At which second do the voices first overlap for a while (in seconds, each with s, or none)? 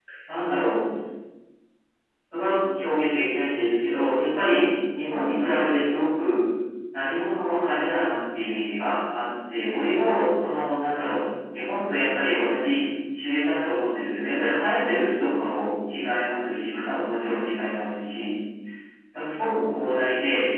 none